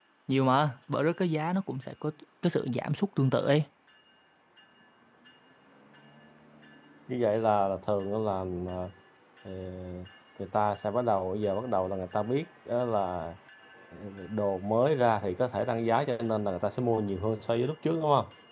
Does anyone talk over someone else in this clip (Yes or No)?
No